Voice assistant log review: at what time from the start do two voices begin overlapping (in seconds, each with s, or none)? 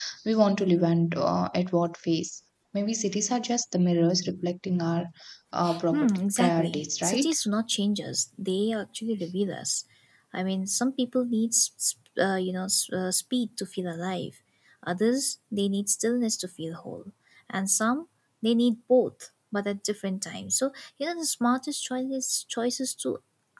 5.9 s